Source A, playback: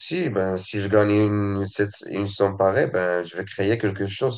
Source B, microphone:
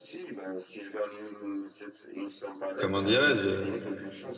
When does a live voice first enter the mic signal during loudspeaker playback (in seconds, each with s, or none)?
2.8 s